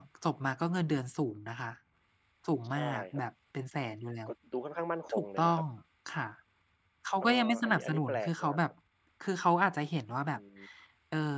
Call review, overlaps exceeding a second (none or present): present